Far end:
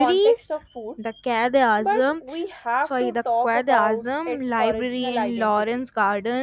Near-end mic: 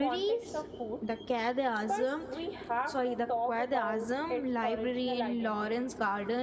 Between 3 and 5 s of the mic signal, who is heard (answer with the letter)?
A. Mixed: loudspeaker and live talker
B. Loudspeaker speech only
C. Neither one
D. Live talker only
B